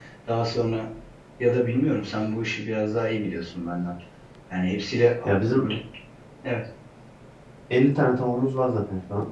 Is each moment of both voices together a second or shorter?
Yes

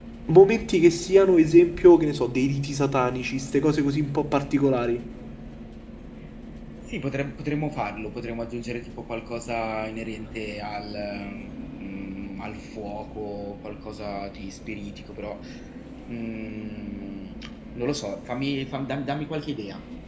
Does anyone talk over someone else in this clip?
No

